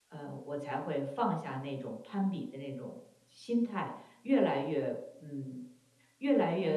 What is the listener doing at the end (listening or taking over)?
listening